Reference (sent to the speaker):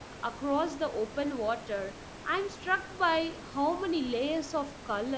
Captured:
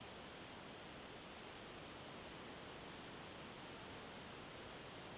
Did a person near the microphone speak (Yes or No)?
No